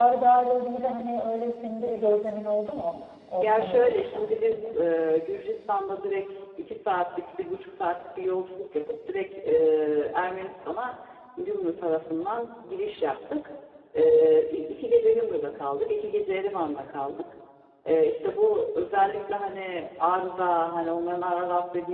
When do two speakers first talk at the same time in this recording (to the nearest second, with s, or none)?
3 s